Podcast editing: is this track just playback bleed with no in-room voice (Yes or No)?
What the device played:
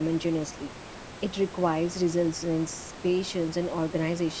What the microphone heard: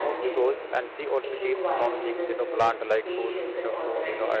No